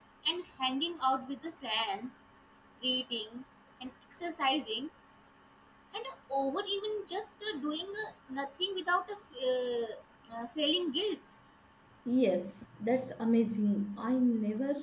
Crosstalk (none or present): none